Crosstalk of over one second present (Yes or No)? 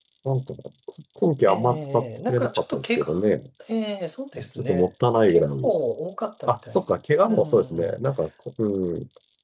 Yes